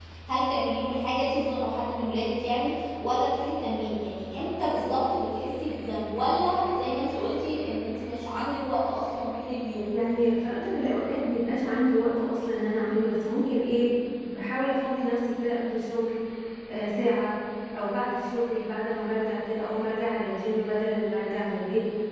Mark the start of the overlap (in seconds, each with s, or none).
none